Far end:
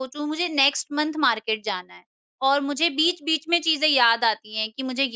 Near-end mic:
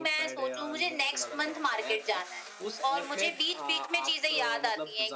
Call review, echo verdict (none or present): present